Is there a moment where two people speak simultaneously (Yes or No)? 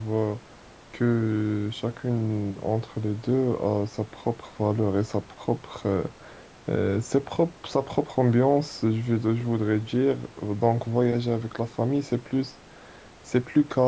No